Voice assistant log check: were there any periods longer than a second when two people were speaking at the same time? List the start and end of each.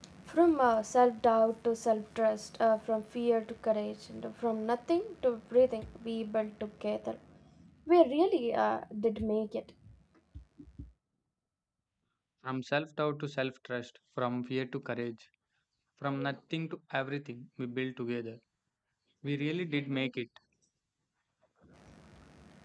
none

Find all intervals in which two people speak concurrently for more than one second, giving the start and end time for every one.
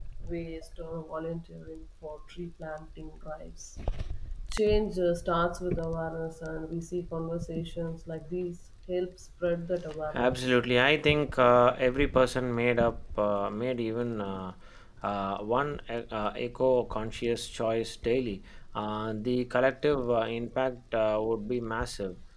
none

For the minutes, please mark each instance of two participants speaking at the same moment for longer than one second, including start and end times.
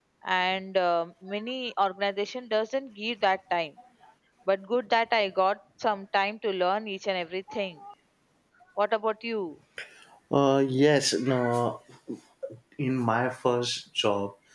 none

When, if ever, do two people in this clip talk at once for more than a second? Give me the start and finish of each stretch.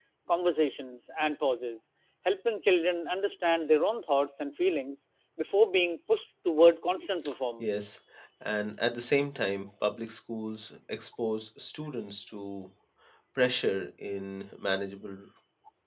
none

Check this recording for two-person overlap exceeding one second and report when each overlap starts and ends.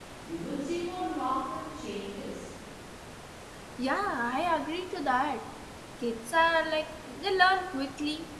none

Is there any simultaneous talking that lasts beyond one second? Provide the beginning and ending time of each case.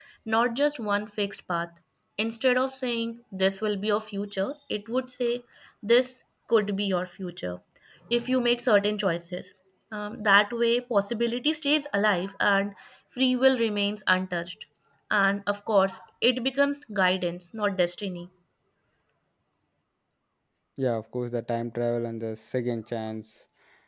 none

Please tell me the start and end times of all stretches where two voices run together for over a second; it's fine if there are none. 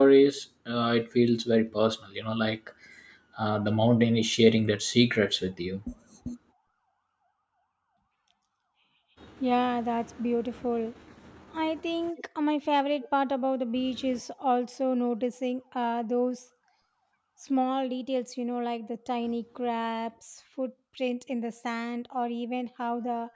none

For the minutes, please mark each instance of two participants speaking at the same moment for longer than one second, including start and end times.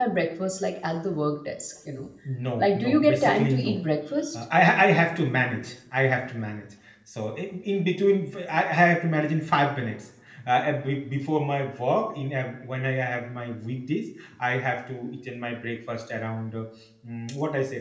2.6-3.8

